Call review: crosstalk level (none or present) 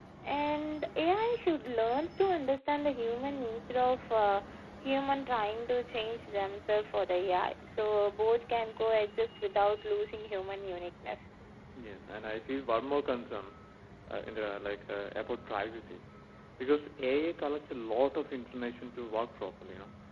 none